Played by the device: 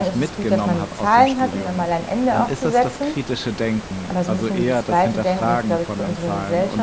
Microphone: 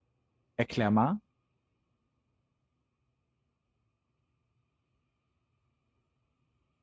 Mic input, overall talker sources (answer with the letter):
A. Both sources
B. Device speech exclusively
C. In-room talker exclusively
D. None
C